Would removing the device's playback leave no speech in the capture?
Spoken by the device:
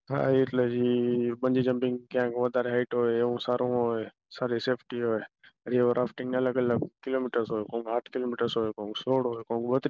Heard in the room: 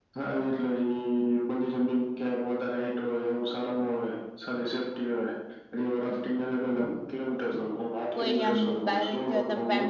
No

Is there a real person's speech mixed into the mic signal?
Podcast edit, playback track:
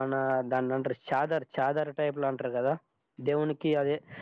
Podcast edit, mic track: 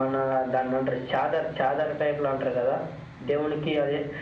No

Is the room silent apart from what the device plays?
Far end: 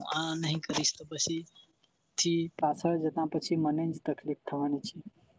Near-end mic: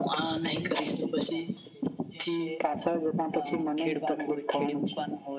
No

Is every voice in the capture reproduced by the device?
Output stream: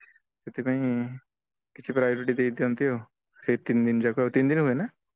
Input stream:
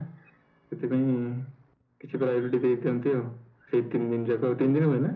Yes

